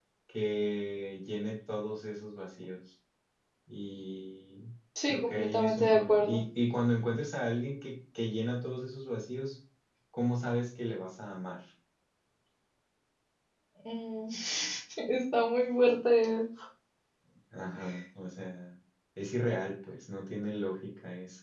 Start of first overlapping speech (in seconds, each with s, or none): 5.1 s